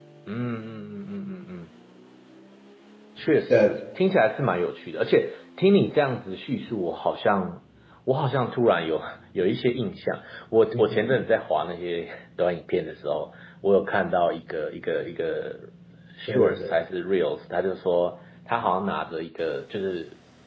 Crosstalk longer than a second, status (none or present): none